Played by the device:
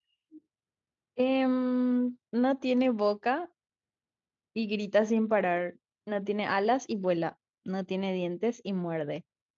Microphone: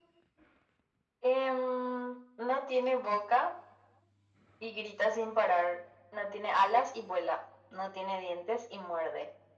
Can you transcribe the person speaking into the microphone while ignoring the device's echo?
none

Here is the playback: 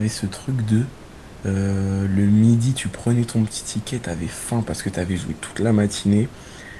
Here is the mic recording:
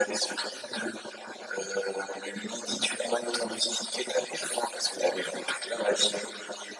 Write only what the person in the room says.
none

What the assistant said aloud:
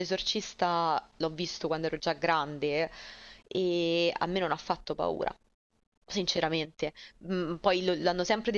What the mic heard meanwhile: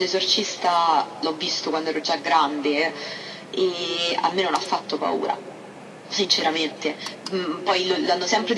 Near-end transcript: none

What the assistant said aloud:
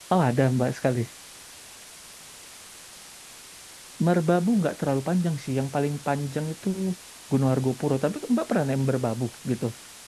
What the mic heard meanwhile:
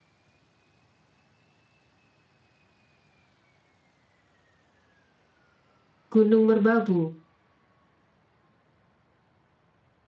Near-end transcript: Gunung Merbabu.

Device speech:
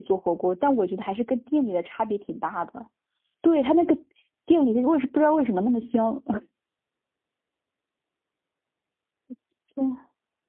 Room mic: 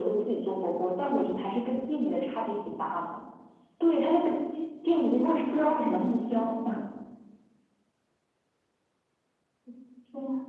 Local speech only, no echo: none

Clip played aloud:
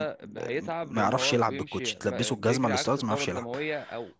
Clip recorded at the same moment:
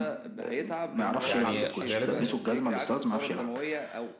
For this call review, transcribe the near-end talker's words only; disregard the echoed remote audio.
يعني غالبا

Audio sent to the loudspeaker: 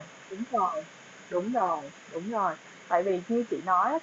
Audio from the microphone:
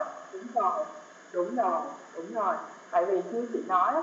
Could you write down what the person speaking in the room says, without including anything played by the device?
none

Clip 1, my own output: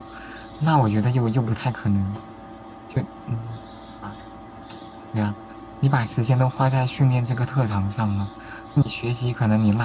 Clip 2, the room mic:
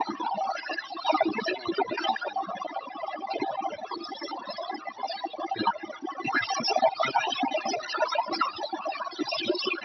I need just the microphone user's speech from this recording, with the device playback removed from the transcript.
none

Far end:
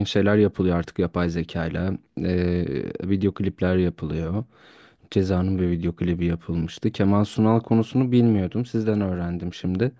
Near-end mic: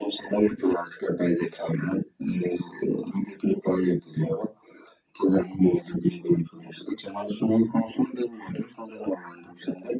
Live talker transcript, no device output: none

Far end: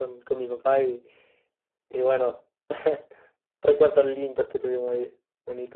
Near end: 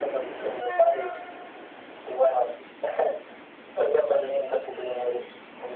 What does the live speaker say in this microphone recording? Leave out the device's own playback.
none

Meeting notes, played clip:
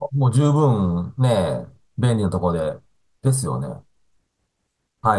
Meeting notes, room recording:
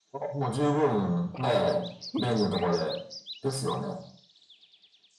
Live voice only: はい。そうですよね。

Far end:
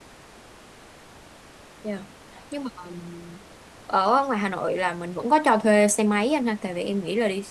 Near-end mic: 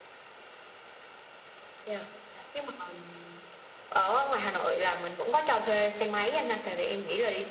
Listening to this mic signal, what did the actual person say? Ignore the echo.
none

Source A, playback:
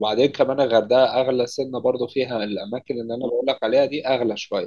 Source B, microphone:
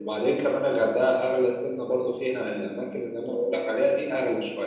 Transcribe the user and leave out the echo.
none

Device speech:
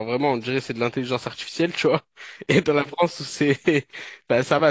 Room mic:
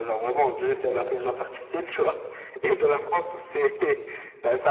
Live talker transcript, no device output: D'accord,

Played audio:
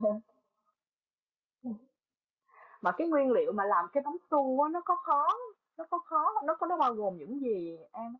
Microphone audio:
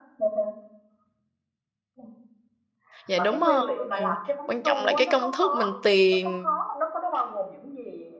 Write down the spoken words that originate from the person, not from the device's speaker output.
Dạ đúng rồi. Quan trọng là cái công thức mình tìm

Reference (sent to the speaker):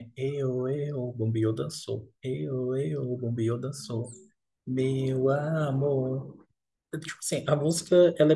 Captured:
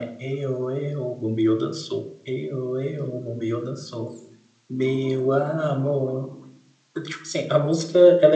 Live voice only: none

